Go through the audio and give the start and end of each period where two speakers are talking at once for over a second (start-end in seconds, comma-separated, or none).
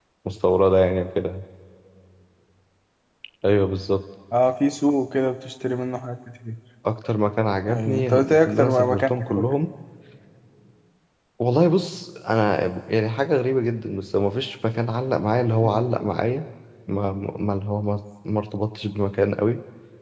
7.7-9.4